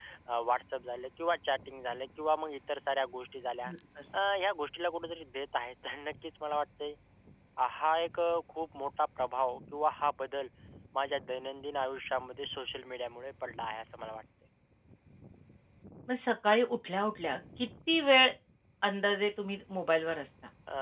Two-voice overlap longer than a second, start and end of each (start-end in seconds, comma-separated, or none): none